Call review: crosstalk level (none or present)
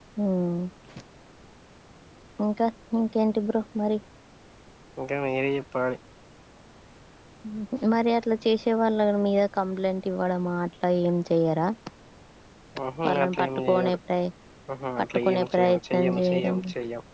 present